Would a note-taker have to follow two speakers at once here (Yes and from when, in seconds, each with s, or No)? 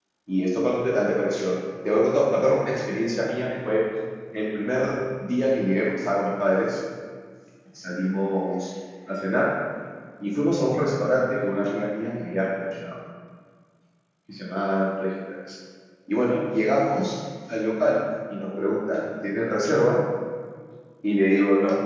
No